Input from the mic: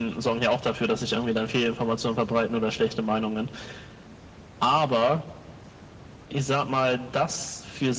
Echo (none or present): present